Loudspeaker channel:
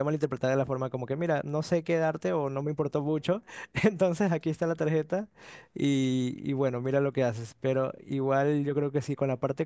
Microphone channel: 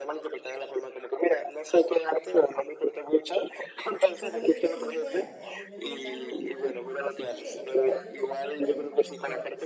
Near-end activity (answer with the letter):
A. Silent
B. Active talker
B